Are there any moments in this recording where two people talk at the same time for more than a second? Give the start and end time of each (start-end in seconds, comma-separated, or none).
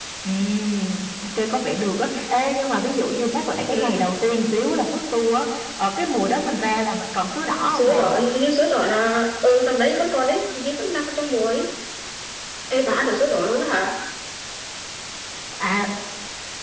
none